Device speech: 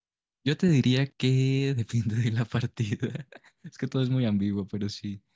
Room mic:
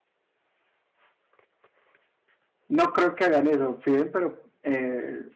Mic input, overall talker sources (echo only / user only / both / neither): user only